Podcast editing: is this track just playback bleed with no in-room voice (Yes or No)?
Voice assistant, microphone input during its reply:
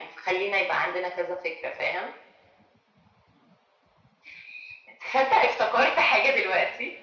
Yes